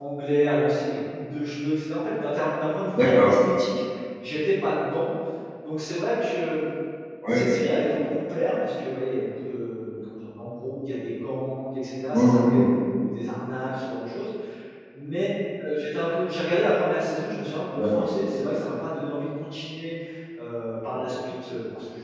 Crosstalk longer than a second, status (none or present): none